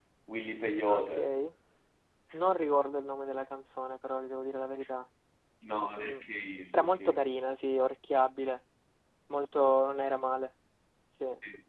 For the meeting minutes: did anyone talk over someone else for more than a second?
No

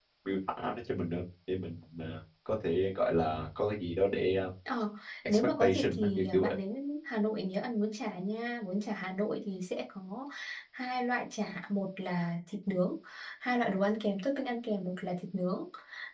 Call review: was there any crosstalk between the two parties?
Yes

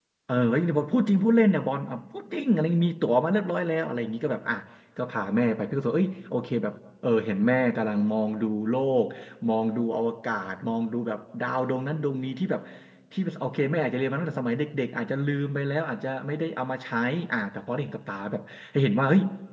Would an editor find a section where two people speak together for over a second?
No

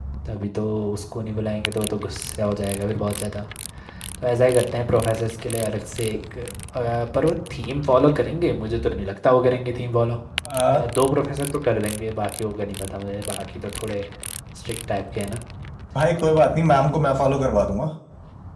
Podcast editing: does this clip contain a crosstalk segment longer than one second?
No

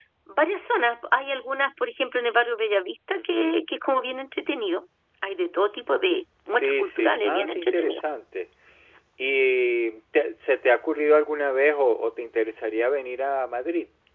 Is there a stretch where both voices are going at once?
Yes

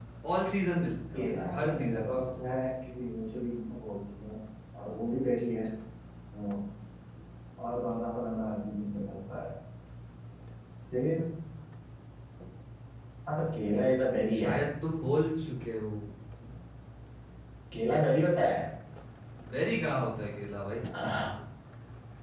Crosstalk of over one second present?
Yes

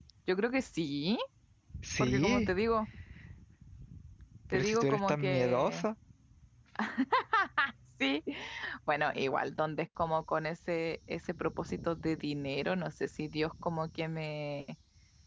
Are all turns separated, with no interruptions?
No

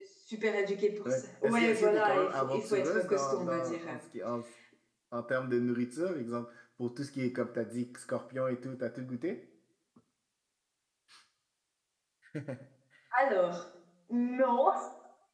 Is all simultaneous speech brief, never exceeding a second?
No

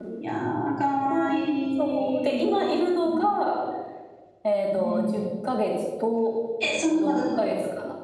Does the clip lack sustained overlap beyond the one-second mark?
No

